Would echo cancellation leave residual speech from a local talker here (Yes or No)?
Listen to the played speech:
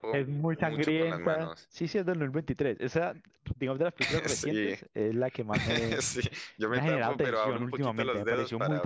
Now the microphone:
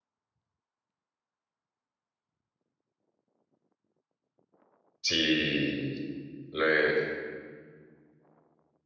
Yes